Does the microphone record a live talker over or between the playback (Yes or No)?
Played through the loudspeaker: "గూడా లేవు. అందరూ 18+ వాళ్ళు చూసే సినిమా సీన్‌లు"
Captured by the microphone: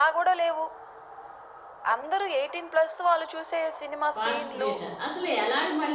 Yes